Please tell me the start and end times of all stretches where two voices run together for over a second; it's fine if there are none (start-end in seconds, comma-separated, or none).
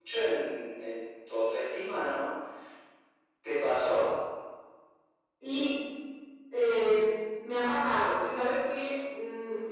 none